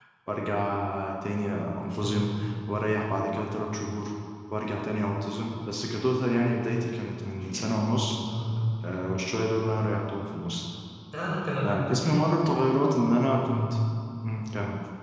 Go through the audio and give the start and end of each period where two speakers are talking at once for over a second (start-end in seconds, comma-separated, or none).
none